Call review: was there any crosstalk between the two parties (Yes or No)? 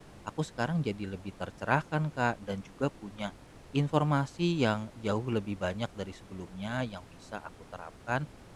No